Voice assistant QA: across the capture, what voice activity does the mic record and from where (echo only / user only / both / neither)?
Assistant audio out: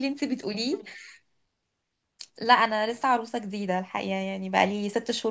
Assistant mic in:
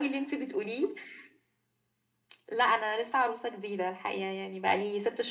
echo only